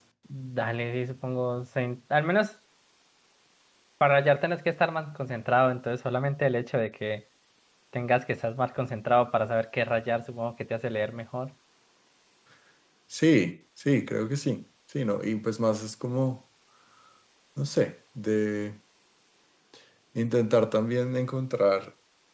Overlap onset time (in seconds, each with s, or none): none